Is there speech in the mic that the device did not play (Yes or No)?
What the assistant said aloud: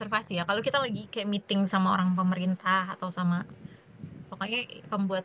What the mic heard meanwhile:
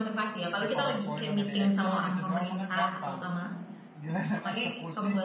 Yes